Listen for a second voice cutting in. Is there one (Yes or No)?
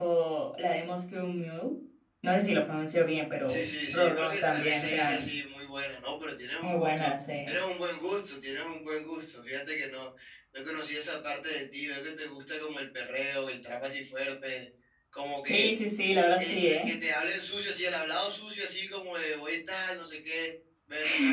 Yes